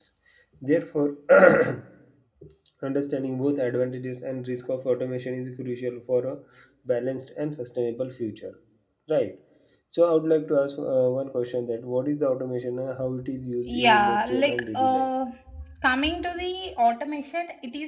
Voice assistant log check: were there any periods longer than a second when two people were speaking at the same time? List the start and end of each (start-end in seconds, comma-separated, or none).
13.7-15.1